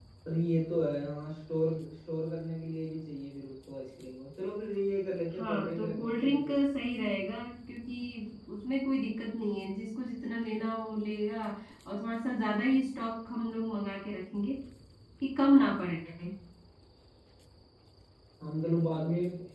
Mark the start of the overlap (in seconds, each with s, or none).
5.3 s